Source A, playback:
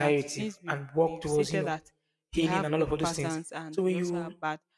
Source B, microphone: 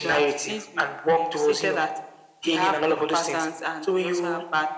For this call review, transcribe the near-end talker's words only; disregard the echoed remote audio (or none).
none